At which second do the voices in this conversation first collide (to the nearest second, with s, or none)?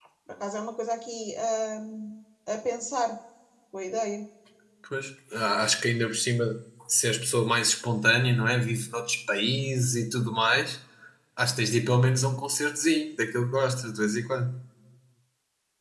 none